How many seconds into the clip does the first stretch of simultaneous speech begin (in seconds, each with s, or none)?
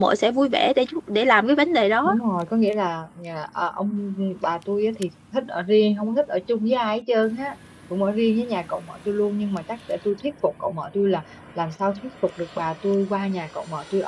none